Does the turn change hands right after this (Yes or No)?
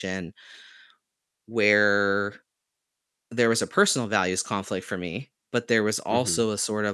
No